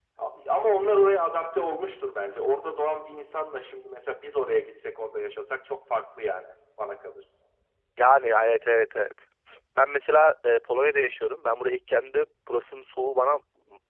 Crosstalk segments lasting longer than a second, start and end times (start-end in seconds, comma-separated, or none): none